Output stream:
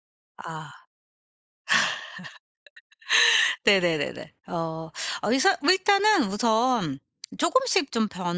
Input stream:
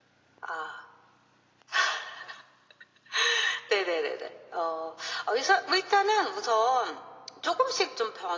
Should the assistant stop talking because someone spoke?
No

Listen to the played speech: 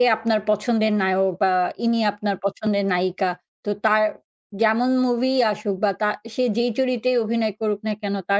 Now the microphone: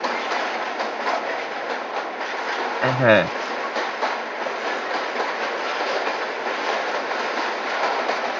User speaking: Yes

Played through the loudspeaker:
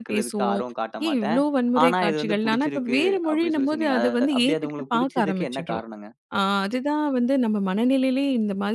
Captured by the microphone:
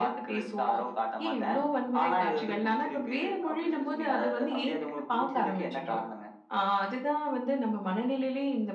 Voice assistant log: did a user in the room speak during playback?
No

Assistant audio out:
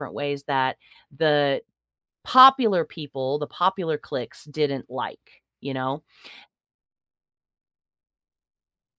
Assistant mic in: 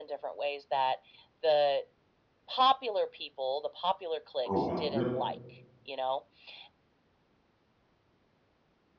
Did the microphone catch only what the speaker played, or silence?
No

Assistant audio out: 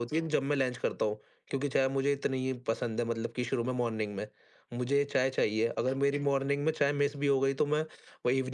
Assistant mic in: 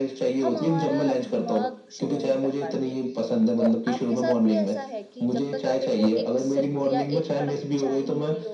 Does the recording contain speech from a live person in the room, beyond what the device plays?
Yes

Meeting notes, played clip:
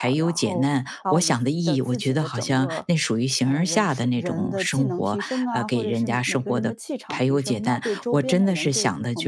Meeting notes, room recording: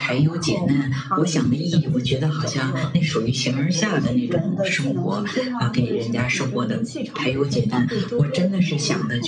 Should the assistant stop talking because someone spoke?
No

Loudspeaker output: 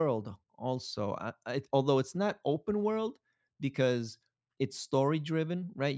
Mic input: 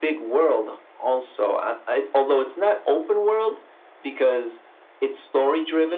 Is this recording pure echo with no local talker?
Yes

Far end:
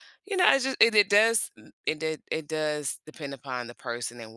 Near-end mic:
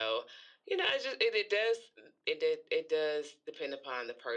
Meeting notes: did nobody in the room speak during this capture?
Yes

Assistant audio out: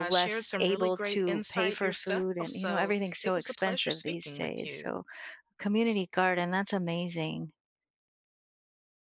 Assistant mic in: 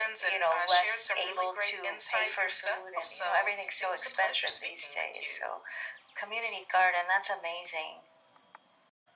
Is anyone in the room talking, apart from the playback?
No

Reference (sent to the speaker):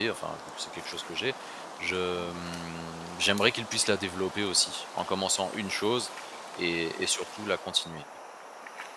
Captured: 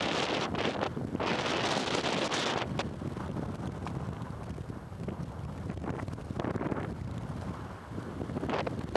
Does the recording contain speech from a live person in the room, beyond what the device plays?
No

